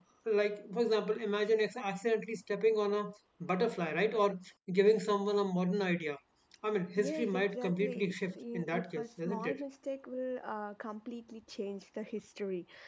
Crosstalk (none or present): present